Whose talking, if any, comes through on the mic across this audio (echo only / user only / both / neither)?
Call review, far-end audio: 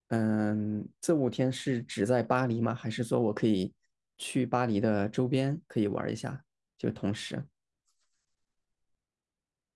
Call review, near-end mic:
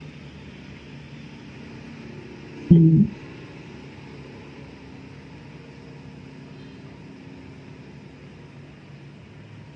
user only